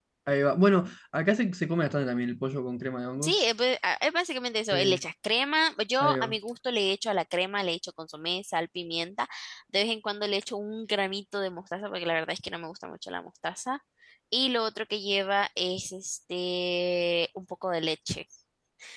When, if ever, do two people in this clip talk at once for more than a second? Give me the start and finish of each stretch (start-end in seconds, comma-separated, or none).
none